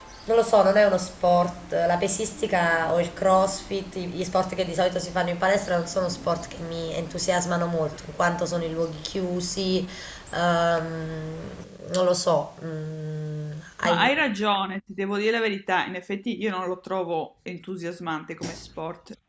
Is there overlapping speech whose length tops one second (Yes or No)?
No